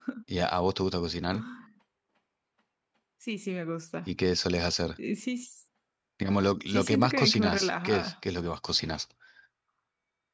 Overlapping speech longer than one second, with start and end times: 6.7-8.1

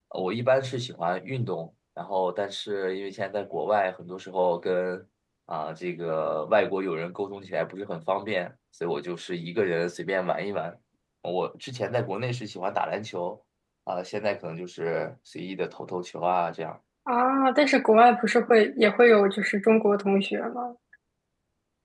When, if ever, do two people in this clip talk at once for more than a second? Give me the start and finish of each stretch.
none

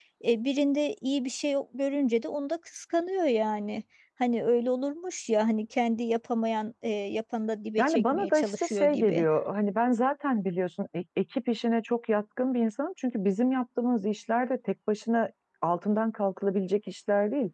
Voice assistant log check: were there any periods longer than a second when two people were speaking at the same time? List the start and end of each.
7.8-9.2

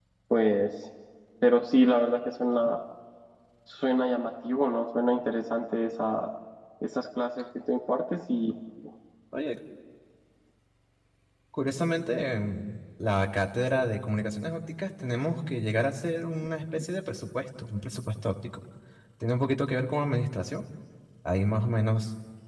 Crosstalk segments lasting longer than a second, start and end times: none

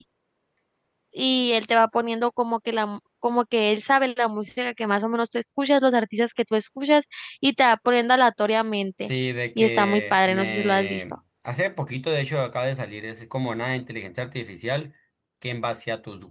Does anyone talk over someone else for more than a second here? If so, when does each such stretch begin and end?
9.6-11.0

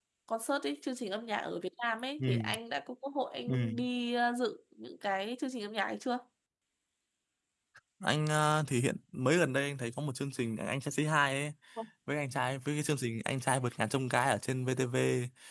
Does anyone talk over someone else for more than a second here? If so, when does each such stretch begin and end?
none

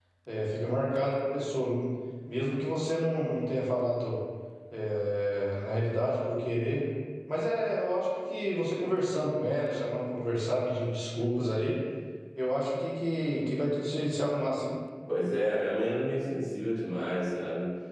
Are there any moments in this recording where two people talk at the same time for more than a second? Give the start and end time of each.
none

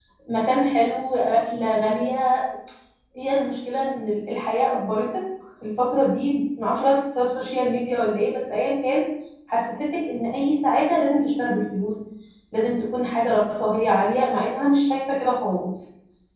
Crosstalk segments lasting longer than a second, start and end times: none

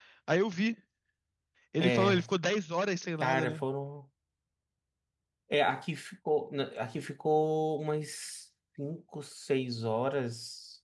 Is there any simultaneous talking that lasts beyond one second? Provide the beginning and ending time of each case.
none

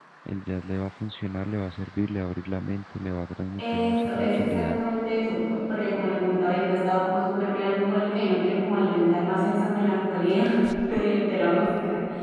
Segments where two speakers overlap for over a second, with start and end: 3.6-4.8

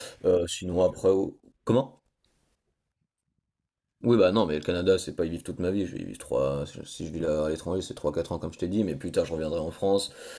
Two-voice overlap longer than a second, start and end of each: none

